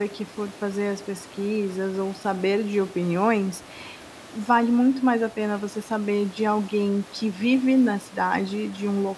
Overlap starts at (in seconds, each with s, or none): none